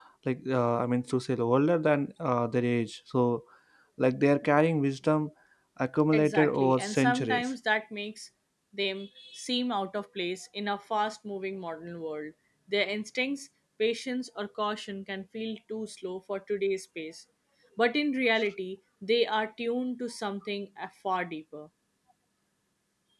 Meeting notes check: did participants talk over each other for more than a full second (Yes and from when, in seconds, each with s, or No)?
Yes, from 6.1 s